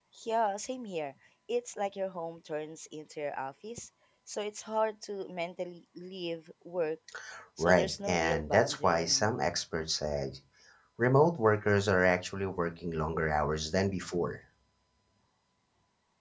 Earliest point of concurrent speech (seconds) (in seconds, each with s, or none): 7.6 s